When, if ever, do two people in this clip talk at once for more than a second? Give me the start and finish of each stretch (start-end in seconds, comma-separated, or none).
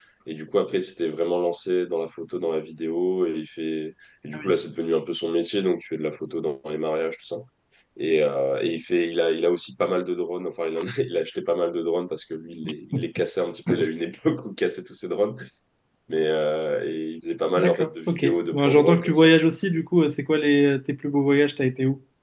17.6-19.3